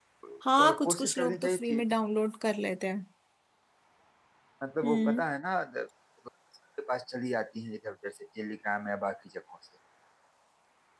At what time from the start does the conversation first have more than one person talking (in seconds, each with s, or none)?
0.6 s